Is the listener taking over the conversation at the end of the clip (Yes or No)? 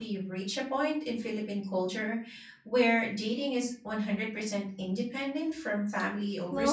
Yes